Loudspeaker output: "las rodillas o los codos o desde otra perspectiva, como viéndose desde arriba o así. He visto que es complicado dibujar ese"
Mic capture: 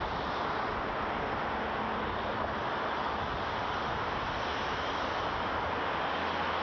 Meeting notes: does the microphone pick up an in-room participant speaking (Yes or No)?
No